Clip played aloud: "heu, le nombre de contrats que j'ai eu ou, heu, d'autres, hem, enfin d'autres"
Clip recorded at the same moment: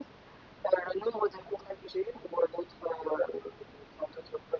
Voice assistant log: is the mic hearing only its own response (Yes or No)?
Yes